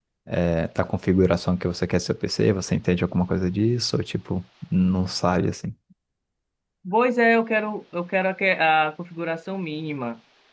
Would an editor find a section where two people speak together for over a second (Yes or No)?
No